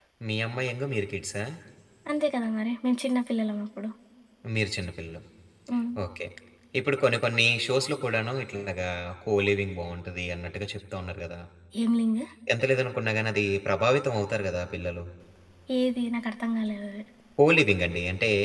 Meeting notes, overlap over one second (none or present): none